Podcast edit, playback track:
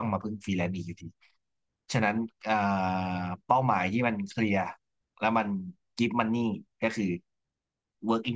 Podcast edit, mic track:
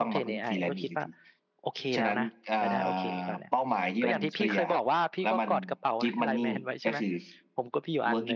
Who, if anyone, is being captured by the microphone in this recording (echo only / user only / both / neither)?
both